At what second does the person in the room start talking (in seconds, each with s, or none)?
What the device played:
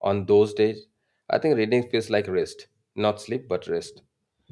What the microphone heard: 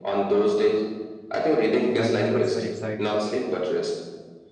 2.0 s